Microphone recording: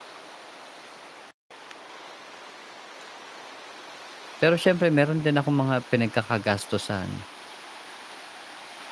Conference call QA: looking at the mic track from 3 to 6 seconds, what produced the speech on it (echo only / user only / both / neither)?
user only